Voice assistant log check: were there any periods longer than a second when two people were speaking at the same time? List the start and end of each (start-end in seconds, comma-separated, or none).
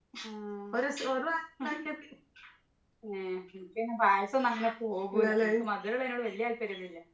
none